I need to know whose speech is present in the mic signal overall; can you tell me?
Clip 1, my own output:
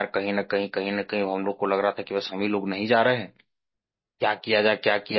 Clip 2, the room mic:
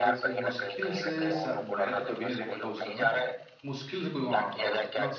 both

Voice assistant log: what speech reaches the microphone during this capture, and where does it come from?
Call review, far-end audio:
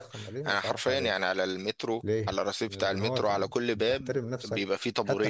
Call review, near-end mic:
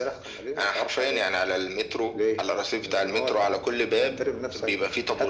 echo only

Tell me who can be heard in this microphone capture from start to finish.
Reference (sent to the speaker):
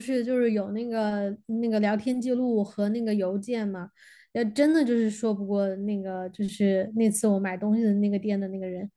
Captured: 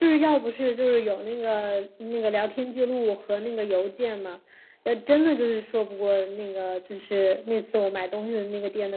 echo only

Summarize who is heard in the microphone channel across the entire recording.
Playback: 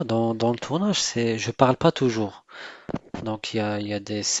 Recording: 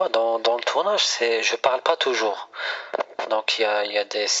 echo only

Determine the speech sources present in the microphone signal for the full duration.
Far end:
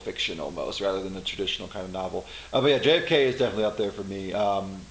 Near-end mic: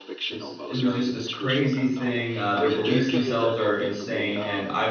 both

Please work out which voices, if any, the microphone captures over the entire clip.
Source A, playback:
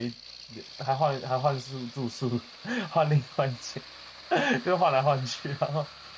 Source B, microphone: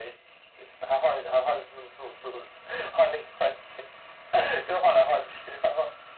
echo only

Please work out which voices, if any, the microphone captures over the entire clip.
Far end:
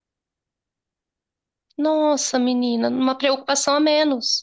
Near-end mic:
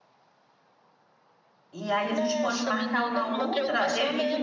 both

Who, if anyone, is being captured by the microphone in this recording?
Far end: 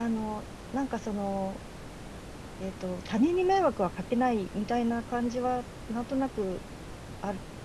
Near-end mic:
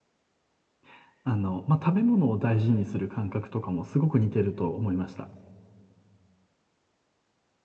user only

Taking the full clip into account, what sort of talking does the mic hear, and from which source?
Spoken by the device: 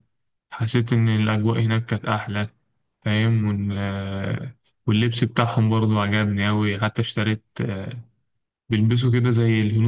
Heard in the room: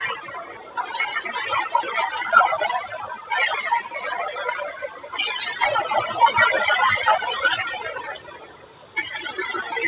echo only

